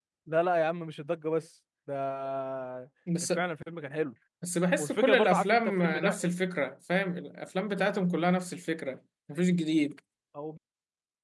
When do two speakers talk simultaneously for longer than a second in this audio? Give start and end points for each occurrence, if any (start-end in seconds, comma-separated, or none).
4.8-6.3